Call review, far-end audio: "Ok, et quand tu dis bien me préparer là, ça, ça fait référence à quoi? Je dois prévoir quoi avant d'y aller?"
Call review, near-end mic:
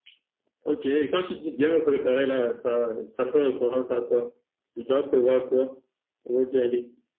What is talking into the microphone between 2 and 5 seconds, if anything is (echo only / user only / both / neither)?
echo only